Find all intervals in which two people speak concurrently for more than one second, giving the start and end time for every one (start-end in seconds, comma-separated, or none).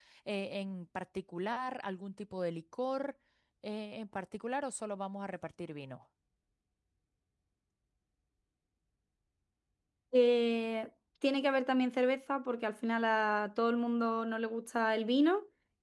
none